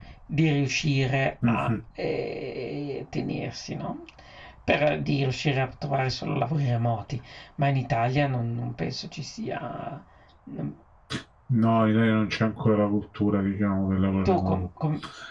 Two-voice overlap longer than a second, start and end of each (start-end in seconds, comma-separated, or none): none